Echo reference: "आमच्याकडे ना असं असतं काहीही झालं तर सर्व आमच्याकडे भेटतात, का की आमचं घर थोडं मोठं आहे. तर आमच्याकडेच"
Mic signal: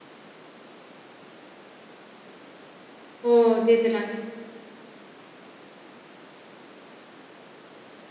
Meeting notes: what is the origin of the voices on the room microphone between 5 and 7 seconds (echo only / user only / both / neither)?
neither